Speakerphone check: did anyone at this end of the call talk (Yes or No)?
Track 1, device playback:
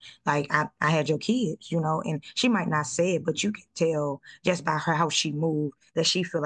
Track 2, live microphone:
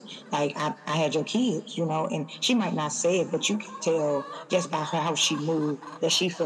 No